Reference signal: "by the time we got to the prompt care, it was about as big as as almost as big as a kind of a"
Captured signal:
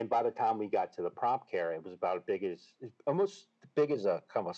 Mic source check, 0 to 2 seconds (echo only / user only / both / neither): echo only